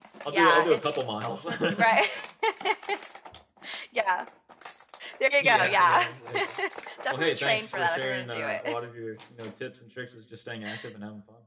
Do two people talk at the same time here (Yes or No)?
Yes